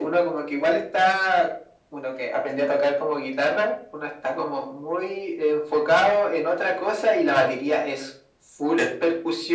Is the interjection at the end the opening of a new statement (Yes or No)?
No